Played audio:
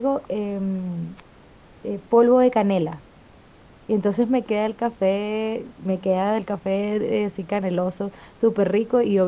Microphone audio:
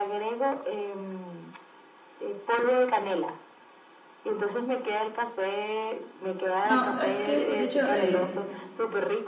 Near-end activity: present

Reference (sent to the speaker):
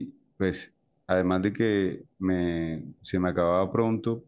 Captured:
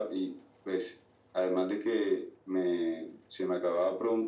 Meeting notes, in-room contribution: none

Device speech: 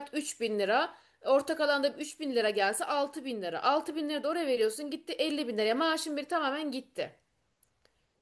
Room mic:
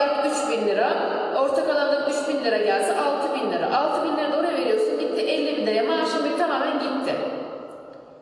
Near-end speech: none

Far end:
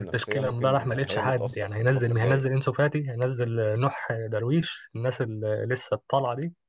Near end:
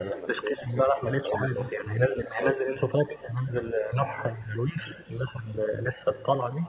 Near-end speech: none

